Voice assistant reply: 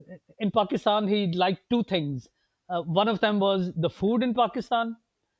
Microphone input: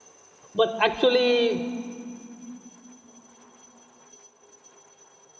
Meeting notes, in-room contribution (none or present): present